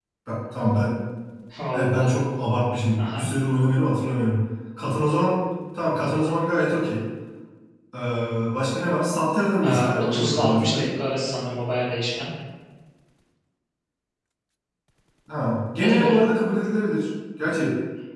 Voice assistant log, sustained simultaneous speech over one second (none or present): present